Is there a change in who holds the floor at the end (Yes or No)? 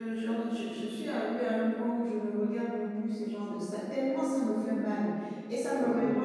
No